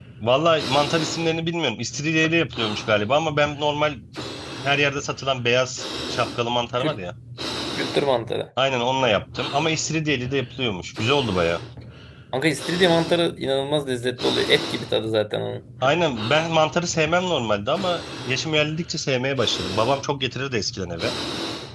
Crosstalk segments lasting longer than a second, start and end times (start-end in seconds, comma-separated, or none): none